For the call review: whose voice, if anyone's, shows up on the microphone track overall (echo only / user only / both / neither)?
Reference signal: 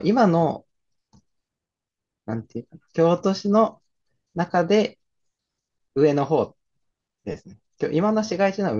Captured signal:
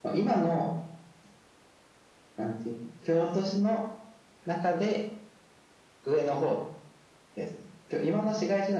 echo only